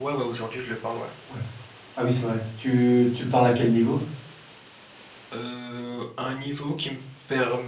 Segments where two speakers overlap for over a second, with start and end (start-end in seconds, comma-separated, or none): none